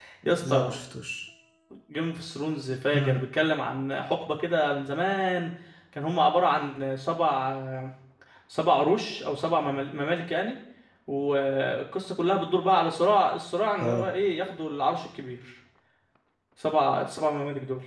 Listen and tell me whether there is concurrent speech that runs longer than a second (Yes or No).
No